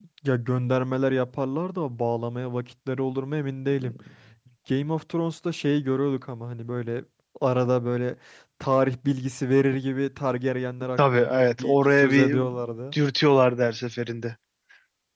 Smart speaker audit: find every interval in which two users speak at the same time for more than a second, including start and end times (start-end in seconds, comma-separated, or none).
11.0-12.4